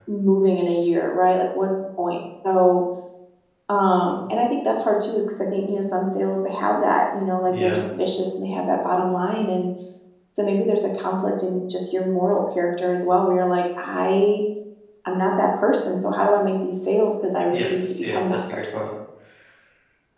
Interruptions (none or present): present